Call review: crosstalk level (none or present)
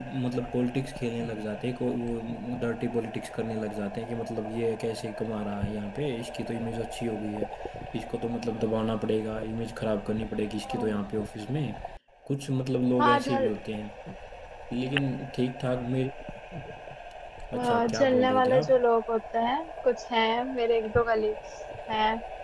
present